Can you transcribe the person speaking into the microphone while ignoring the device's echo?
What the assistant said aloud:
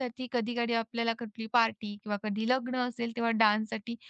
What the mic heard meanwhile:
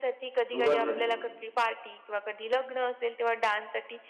सुरुवात झाली

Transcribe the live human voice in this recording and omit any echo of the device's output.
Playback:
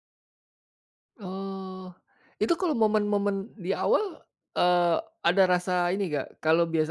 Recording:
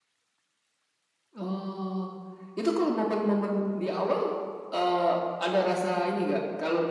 none

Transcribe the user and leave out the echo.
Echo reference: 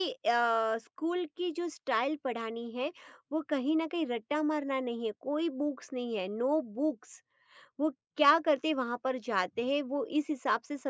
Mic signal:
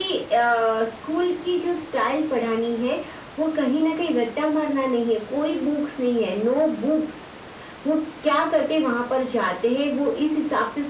none

